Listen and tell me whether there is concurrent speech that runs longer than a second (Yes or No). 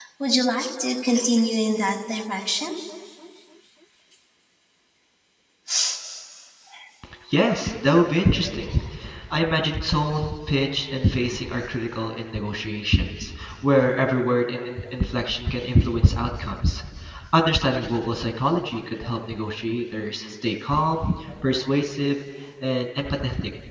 No